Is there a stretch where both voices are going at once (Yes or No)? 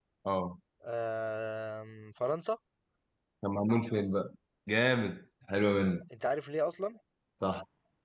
No